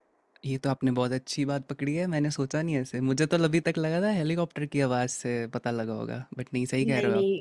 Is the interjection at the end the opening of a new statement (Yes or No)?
Yes